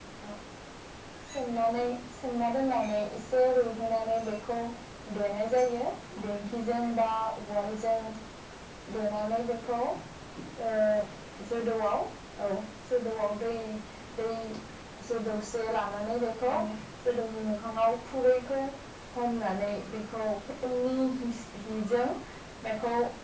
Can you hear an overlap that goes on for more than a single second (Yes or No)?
No